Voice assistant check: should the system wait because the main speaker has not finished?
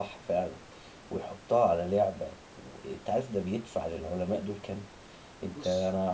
Yes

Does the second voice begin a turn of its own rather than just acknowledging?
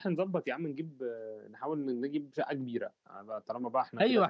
Yes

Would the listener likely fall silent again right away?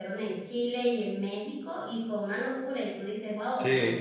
Yes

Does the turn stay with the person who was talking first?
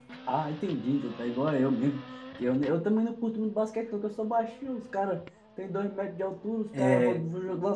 Yes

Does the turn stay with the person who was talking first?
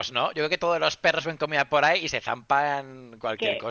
No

